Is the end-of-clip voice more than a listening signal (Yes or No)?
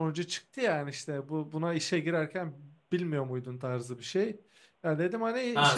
Yes